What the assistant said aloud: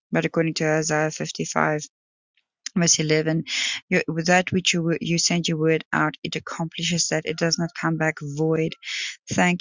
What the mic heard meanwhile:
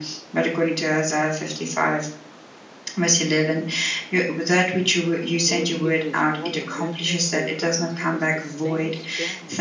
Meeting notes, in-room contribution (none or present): present